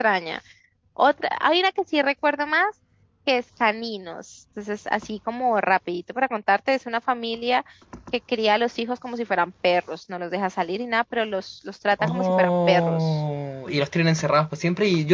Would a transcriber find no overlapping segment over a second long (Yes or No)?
No